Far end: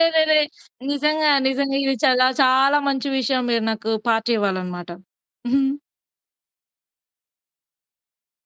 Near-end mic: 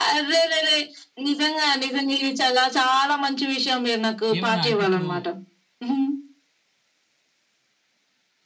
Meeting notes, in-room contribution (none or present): present